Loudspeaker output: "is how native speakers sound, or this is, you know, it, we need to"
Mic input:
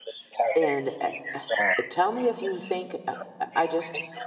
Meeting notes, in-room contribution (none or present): present